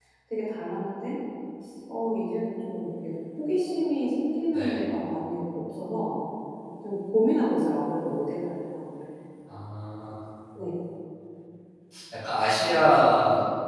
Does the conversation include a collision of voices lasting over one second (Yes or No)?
No